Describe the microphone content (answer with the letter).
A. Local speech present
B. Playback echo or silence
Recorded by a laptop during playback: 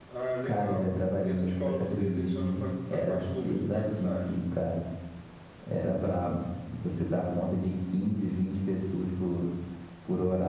B